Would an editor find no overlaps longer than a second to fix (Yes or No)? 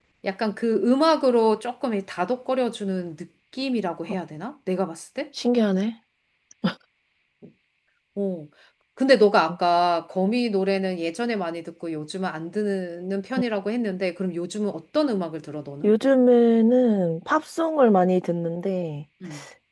Yes